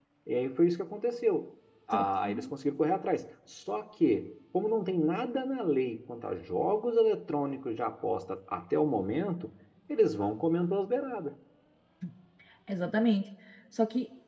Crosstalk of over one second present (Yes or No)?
No